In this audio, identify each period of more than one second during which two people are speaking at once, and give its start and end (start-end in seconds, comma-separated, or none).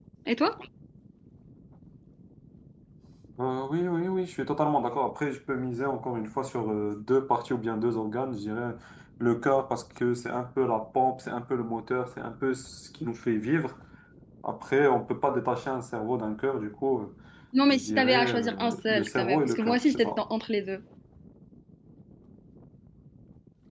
17.7-20.2